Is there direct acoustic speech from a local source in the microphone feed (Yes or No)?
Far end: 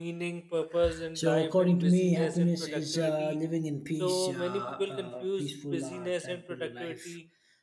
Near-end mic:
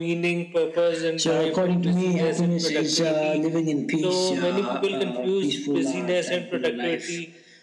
No